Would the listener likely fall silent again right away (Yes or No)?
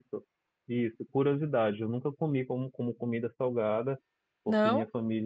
Yes